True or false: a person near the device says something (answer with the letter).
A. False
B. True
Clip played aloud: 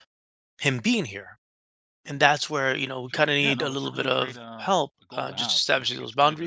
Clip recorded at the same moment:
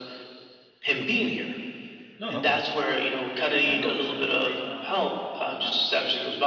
B